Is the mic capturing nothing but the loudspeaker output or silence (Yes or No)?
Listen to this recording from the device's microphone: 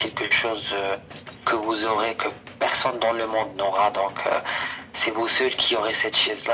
Yes